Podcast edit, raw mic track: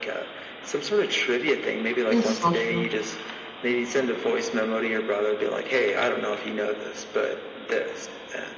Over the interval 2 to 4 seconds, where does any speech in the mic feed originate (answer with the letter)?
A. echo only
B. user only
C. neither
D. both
D